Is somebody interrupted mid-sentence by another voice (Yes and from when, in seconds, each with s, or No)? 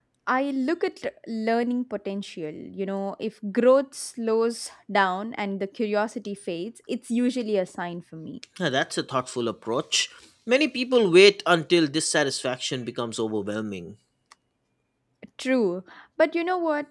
No